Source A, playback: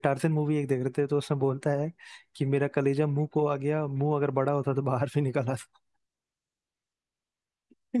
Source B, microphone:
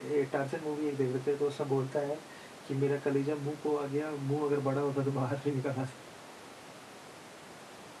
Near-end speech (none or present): none